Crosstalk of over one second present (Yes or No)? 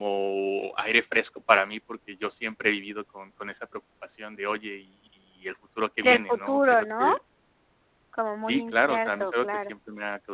Yes